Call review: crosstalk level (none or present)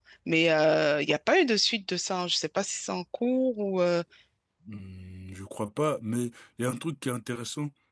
none